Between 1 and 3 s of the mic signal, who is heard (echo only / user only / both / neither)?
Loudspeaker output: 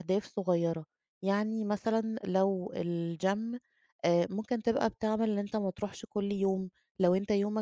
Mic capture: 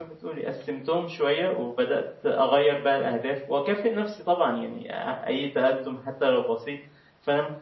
user only